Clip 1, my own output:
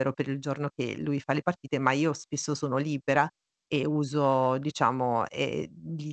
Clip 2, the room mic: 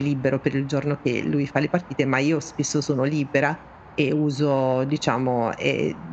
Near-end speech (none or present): none